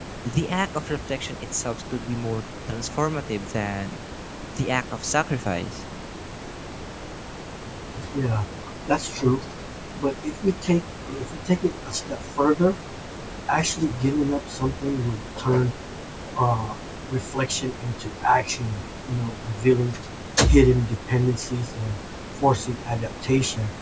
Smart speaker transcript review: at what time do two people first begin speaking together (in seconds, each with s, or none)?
none